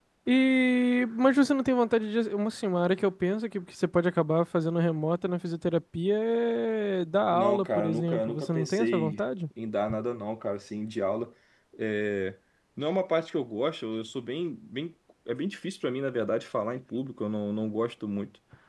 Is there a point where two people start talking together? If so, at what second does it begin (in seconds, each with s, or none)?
7.3 s